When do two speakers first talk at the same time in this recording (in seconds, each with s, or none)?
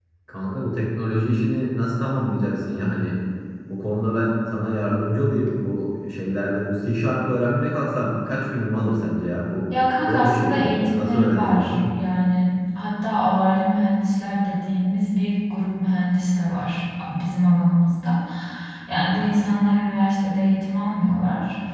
10.0 s